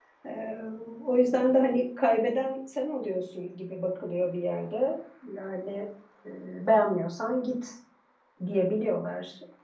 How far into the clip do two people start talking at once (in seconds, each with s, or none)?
none